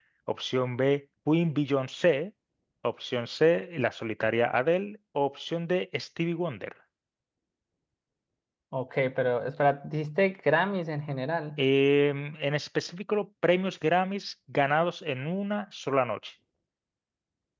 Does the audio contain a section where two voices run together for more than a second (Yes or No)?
No